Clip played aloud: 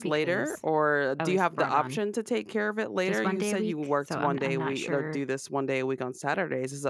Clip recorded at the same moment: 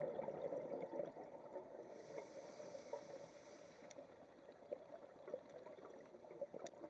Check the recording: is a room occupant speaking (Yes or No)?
No